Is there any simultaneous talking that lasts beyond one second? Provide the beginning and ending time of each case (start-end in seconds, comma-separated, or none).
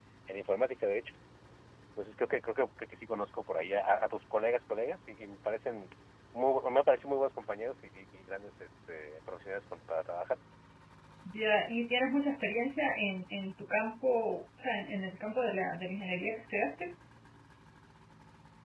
none